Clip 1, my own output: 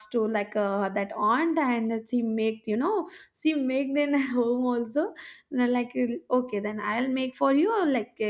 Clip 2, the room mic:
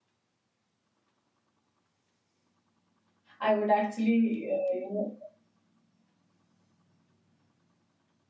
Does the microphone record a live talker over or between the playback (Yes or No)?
Yes